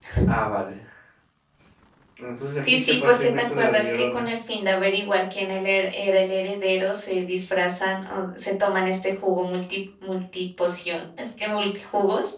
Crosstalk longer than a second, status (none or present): present